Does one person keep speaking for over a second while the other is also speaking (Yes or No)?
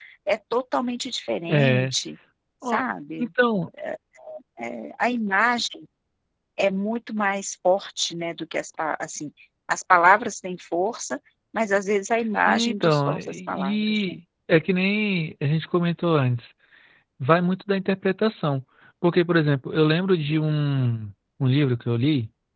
Yes